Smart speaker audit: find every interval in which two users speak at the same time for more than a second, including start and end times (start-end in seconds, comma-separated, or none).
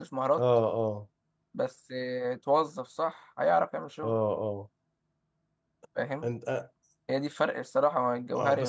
none